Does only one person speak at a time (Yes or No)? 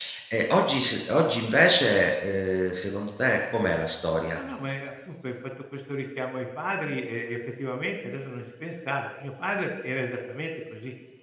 Yes